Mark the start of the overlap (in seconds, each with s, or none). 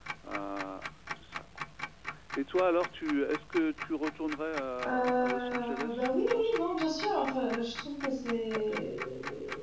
4.8 s